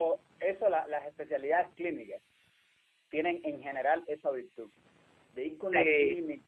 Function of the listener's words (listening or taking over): listening